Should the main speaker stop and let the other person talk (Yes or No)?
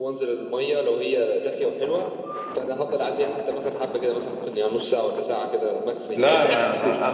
Yes